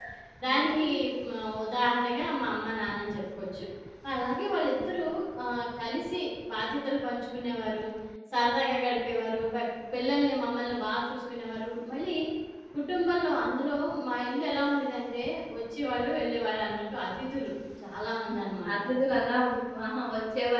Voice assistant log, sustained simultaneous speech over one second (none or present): none